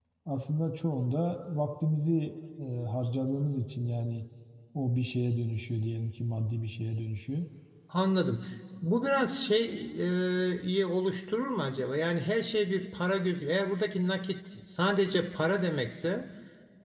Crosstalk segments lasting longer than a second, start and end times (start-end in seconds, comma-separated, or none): none